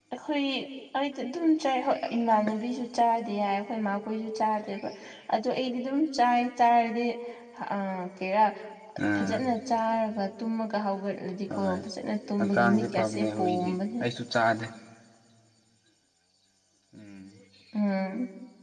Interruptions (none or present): present